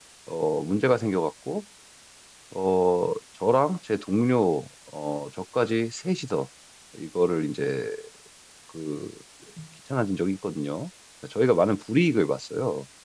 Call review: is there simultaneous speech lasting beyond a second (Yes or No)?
No